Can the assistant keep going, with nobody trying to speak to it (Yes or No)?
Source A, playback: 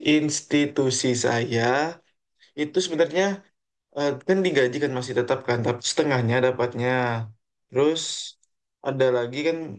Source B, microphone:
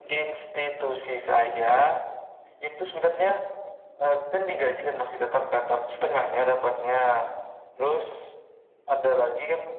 Yes